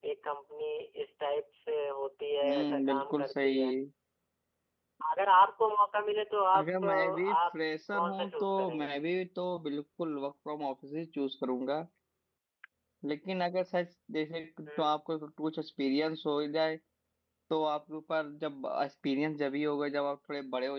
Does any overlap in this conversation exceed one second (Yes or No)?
Yes